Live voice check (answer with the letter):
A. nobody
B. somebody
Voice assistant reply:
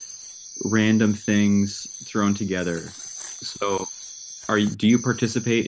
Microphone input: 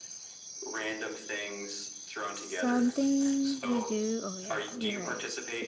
B